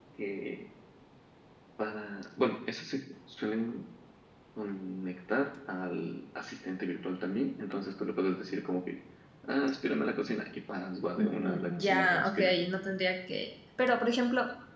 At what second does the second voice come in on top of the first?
11.2 s

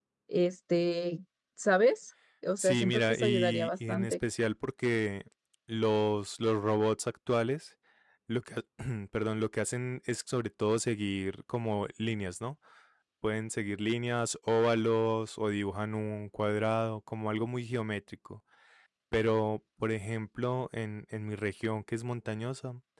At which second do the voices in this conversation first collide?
2.6 s

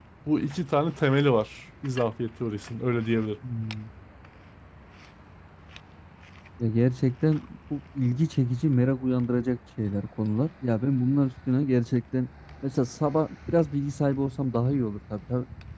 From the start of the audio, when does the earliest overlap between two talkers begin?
none

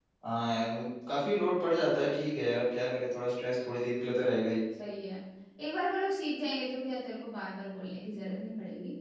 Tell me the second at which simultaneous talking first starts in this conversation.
none

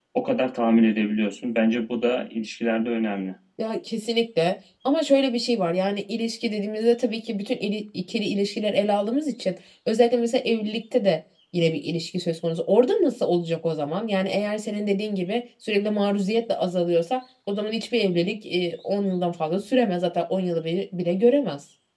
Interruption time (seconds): none

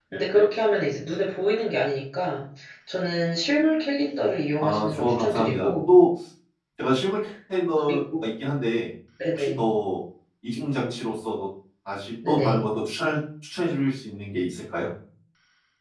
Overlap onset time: 4.6 s

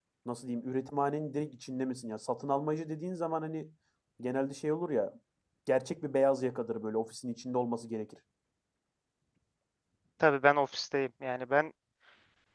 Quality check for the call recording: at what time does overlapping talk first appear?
none

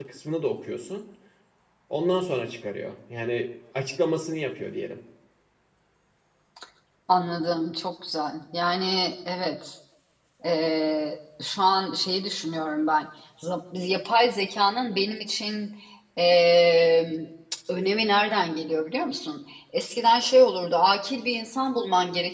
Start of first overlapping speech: none

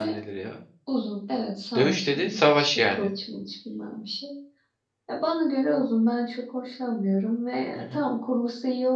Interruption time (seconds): 1.8 s

